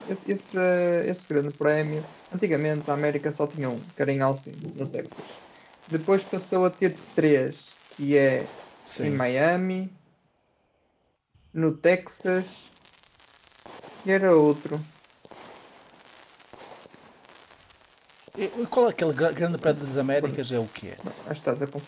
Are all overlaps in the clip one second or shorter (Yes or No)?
Yes